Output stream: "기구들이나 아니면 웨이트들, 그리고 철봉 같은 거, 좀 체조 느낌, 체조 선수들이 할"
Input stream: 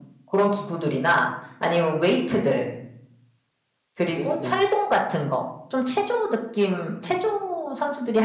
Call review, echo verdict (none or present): present